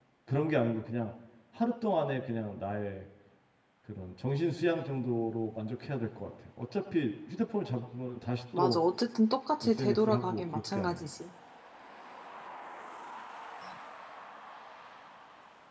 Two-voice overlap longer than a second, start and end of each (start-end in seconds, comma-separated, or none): 9.6-11.0